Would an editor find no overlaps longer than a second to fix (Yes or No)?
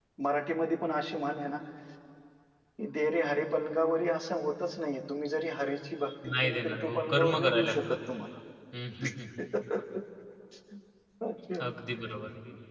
No